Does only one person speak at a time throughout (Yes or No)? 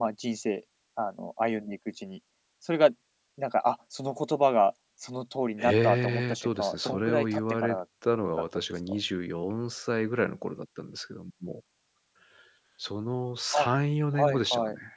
No